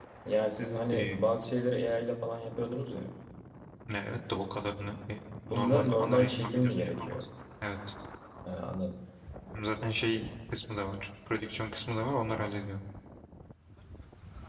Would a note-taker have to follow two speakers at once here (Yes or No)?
Yes